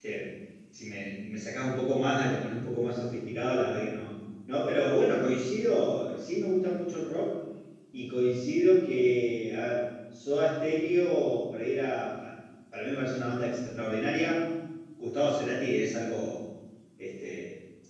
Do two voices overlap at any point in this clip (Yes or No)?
No